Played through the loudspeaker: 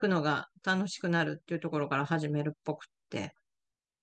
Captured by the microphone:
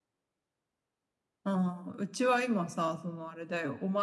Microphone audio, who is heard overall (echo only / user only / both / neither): user only